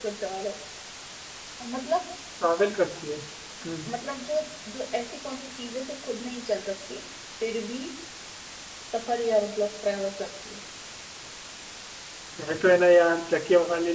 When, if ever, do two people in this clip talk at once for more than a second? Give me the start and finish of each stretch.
none

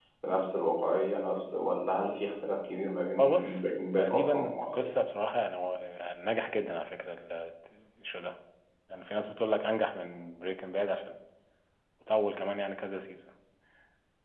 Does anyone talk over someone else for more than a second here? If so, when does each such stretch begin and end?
3.2-4.9

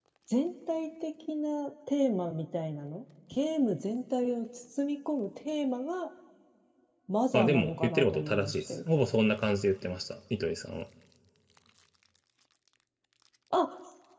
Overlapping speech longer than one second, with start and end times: 7.3-8.8

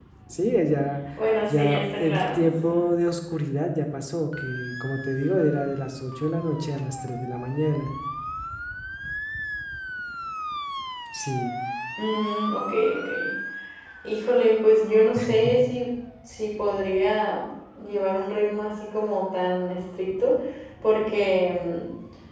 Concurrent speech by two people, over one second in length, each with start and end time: 1.5-2.8

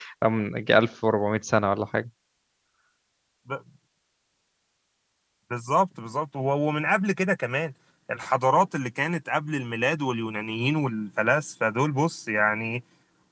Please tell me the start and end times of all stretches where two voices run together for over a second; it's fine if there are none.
none

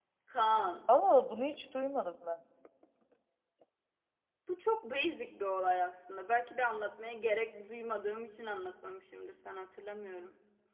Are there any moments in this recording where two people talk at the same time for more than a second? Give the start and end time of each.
none

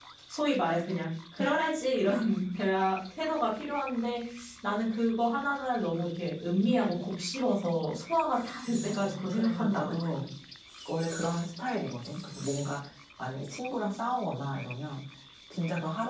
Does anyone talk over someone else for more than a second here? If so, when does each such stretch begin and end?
8.8-10.1

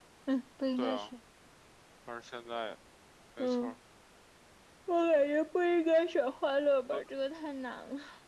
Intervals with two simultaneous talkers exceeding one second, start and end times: none

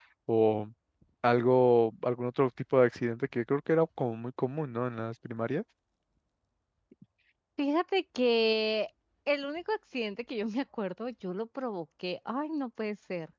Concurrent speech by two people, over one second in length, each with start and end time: none

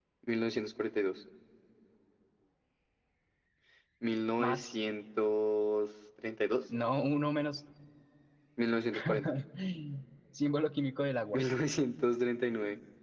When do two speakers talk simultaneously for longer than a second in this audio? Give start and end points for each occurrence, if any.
none

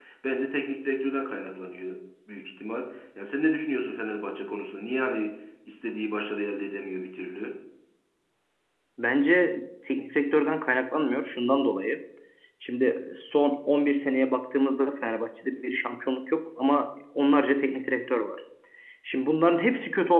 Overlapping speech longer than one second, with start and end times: none

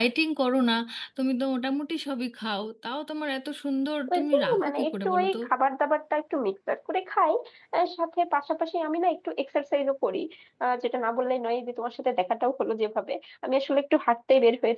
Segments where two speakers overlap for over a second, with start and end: 4.1-5.4

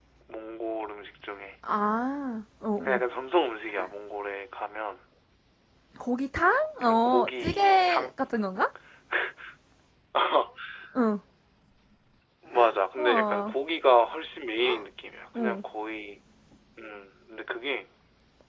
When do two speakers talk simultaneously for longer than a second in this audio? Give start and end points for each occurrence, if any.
6.8-8.1

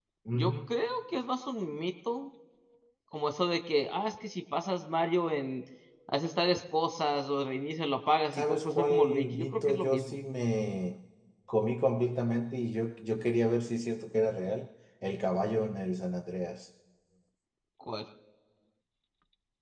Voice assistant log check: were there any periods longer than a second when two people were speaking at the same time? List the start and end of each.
8.3-10.2

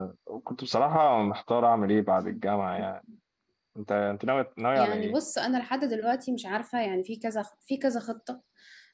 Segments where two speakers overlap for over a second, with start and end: none

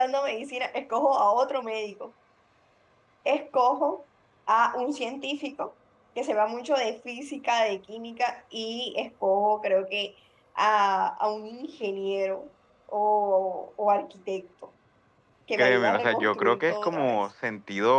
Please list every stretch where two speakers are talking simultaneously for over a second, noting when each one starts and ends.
15.6-17.3

